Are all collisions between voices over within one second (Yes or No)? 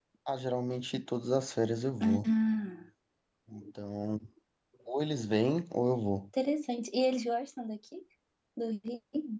Yes